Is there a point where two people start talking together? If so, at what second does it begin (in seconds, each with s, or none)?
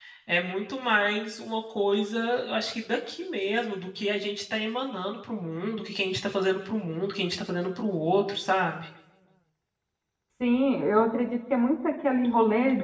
none